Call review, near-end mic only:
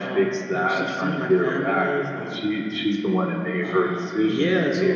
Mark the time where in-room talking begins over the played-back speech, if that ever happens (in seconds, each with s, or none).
none